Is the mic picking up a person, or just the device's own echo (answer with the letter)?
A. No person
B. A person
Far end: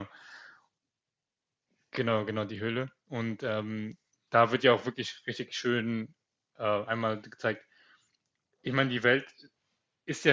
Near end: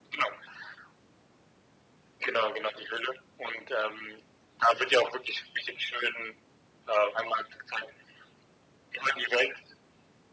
A